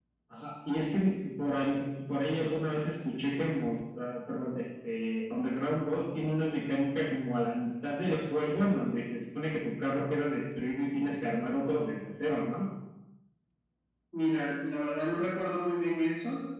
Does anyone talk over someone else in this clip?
No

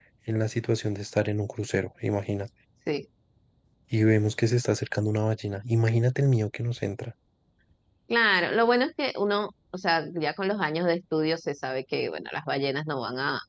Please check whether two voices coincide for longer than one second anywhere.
No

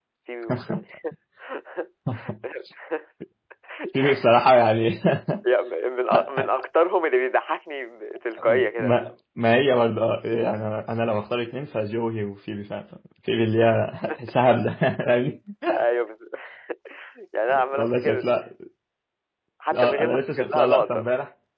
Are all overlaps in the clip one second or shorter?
No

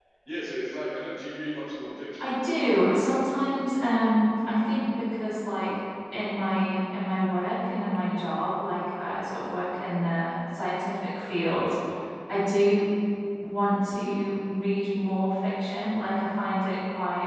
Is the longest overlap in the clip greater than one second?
No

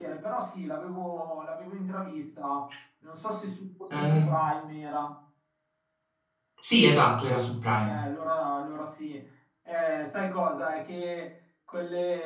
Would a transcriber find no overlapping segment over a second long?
Yes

